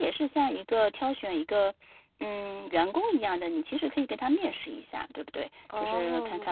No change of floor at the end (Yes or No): Yes